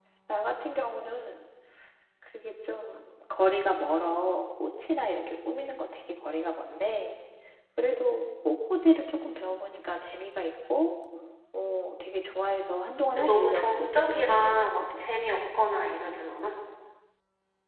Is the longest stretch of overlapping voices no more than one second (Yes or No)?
No